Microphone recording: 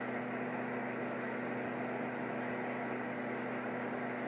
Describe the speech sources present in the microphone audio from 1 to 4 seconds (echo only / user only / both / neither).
neither